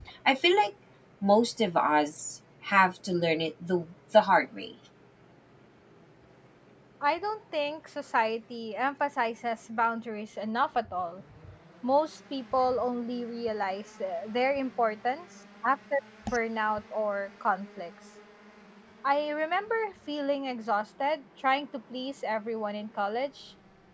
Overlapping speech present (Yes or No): No